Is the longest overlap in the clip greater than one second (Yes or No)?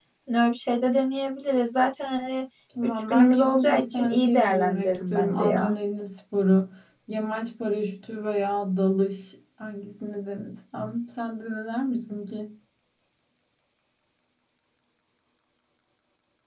Yes